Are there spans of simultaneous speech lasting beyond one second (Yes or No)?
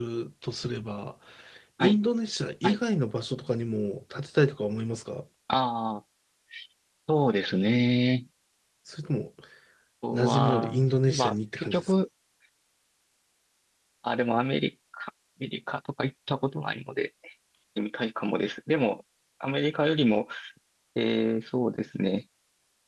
Yes